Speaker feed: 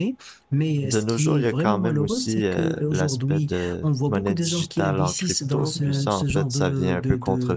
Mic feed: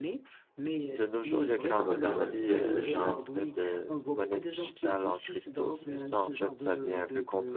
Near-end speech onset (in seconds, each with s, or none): 1.6 s